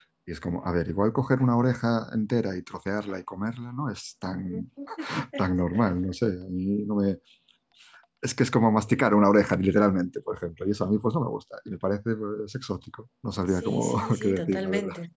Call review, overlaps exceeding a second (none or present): present